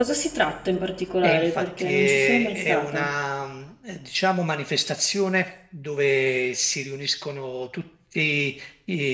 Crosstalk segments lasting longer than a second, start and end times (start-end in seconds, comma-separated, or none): 1.2-3.1